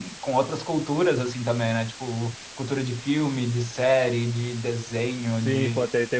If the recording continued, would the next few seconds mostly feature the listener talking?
Yes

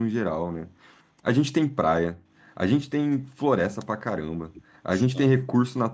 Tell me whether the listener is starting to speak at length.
No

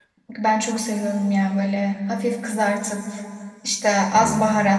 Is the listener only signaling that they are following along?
Yes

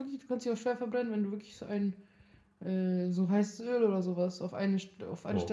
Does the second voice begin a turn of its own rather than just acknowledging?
Yes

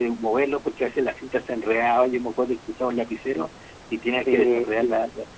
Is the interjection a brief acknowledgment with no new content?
Yes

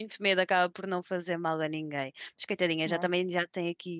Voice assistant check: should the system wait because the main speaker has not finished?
Yes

